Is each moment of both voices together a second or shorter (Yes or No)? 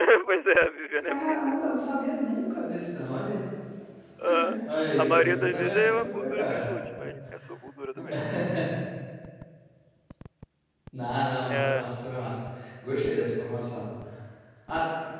No